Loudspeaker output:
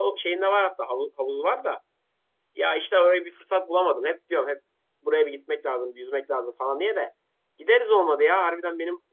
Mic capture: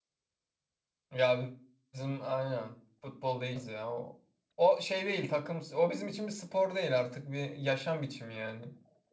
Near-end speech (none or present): present